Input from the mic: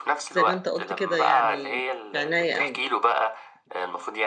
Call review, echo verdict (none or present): present